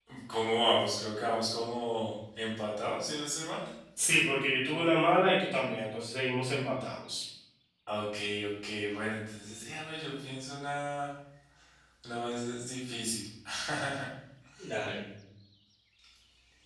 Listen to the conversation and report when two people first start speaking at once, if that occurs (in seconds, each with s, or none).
none